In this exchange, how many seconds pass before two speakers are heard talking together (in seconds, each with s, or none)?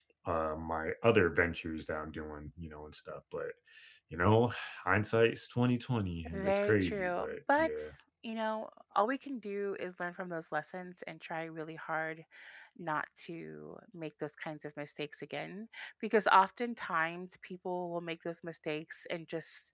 6.2 s